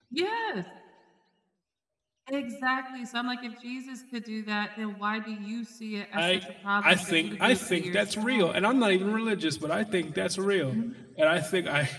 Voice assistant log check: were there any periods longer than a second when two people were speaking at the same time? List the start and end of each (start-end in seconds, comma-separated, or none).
6.8-8.5